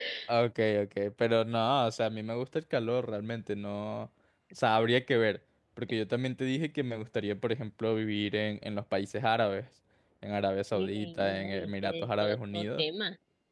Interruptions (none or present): present